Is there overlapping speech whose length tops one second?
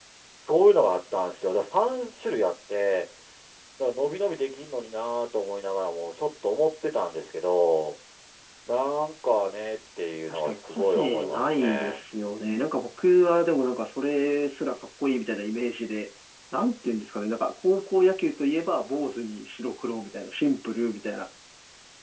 Yes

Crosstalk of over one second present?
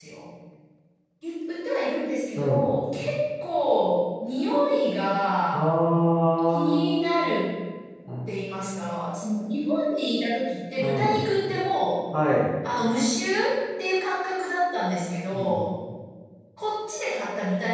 No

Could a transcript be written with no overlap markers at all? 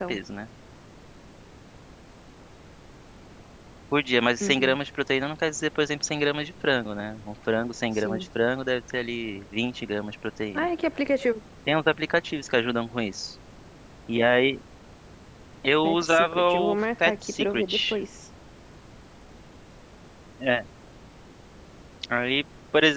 No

